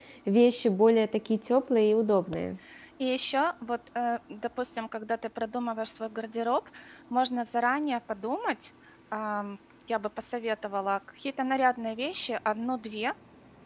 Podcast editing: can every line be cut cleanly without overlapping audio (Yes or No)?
Yes